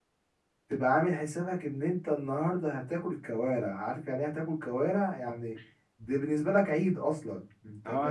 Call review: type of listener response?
taking over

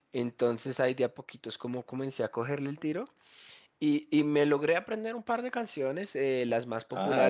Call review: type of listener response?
listening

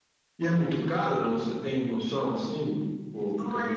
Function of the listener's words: taking over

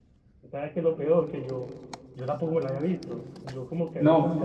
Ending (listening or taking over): listening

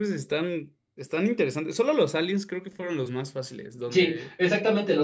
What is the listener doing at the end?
taking over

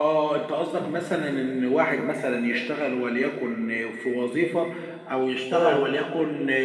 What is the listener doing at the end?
listening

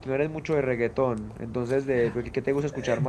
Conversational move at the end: taking over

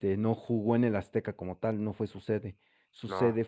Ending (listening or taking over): listening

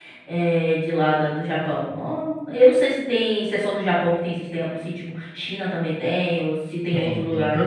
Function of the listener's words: taking over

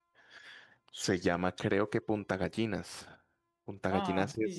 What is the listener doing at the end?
taking over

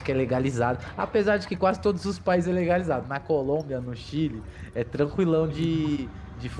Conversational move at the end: listening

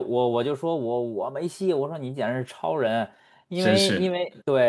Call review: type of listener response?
listening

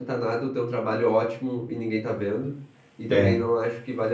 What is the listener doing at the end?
listening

